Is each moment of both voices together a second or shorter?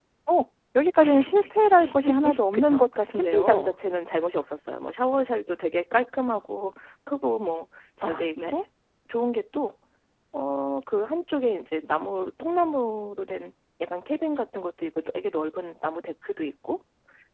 No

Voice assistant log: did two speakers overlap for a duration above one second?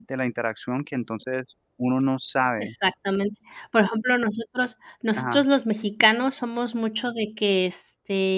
No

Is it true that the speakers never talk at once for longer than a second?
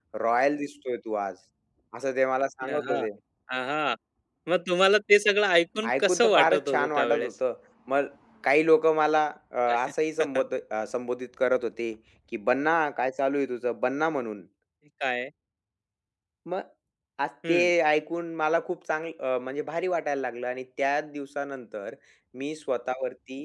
No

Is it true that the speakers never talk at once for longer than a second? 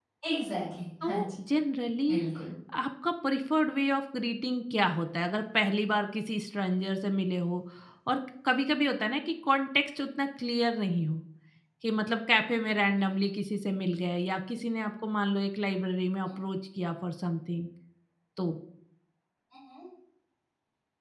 Yes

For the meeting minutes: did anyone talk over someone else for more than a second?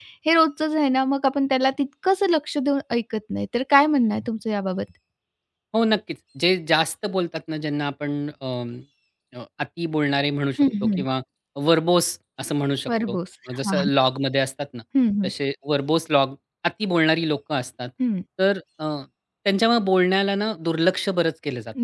No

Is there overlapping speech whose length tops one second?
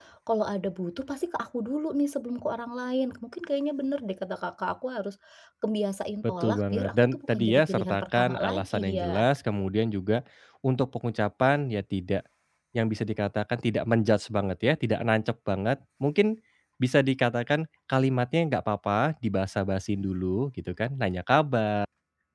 Yes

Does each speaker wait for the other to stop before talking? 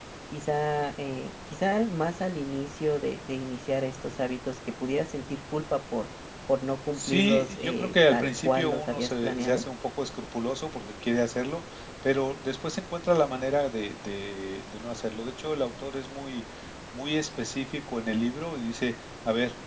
No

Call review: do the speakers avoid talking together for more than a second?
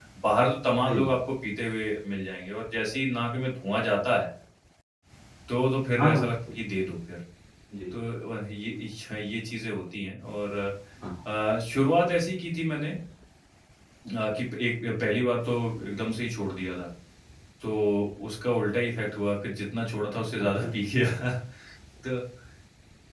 Yes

